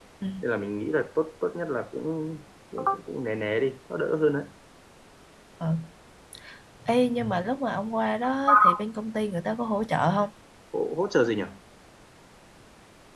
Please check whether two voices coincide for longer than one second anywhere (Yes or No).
No